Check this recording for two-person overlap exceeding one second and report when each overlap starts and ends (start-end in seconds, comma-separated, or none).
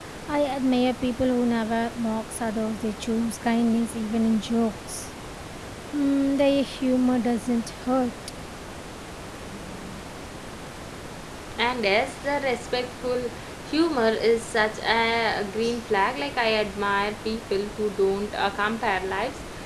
none